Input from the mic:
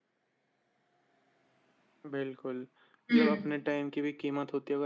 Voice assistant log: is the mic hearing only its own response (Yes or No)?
No